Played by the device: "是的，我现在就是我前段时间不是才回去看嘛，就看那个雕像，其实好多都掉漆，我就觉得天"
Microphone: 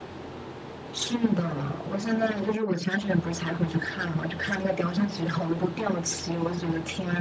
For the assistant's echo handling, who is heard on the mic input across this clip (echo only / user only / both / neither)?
echo only